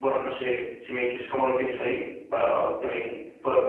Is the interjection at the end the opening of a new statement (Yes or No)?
Yes